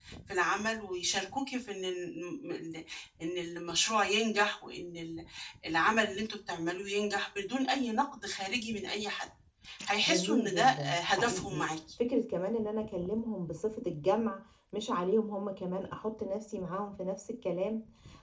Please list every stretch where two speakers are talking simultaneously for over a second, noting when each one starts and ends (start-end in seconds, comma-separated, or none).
10.1-11.6